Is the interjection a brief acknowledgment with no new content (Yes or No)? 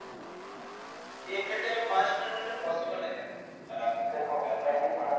No